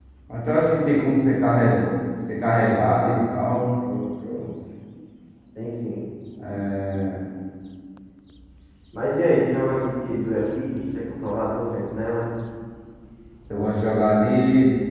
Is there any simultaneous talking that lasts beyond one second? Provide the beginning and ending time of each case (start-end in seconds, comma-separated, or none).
none